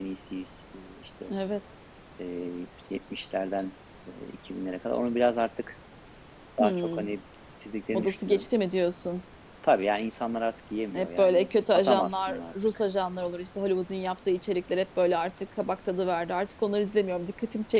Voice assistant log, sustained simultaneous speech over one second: present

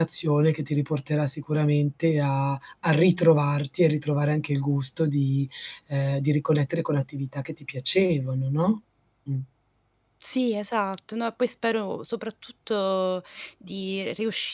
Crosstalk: none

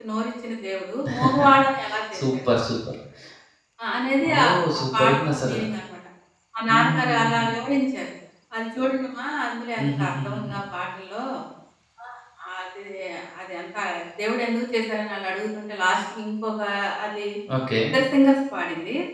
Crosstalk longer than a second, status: present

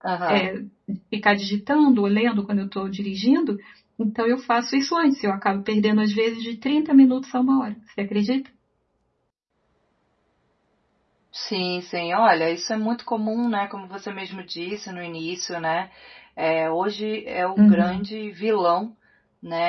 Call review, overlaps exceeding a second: none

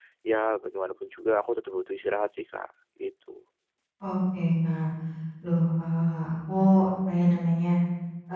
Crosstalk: none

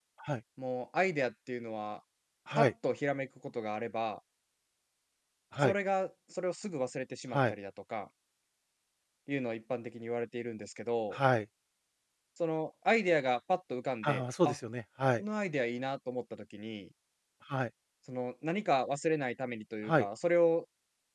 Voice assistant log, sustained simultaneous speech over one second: none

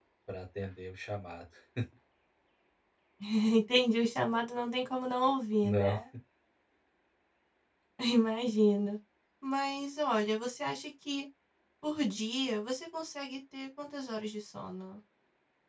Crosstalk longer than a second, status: none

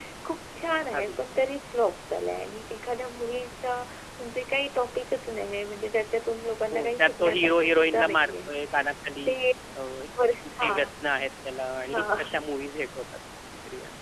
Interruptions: present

